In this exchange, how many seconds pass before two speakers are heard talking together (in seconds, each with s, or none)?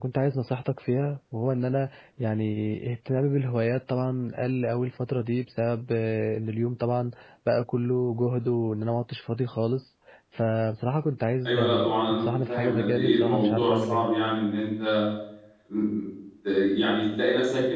11.4 s